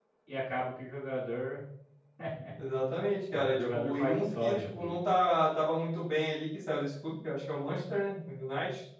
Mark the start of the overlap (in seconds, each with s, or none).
3.3 s